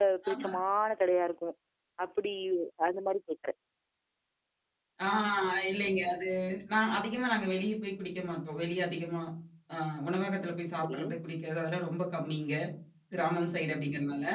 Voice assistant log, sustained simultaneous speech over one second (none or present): none